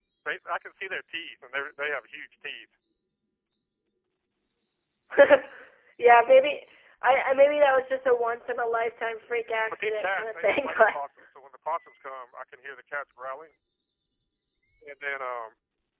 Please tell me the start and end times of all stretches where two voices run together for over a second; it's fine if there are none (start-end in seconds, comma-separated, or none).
9.7-11.0